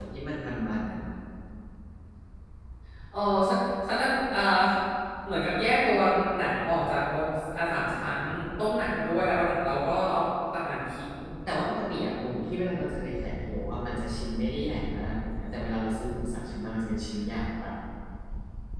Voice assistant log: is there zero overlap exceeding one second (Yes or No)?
Yes